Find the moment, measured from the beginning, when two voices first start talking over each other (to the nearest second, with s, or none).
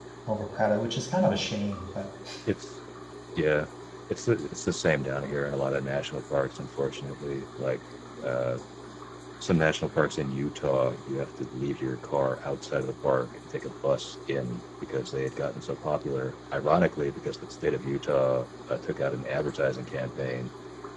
none